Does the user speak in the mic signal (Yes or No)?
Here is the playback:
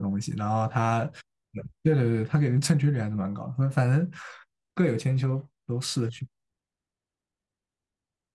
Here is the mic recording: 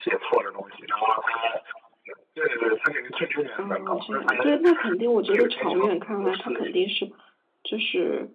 Yes